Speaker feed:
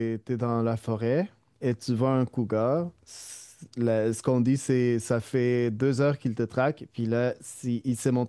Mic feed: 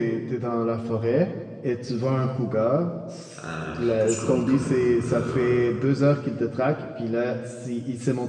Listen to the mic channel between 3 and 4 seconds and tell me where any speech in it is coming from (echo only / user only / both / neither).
both